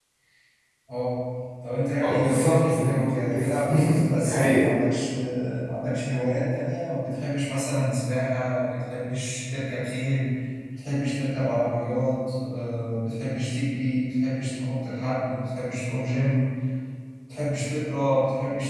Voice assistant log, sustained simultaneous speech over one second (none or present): present